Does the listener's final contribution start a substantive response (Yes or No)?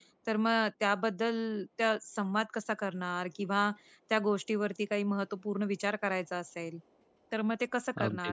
No